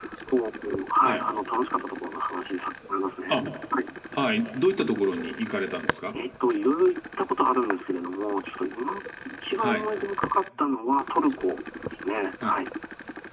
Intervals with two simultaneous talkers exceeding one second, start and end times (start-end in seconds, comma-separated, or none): none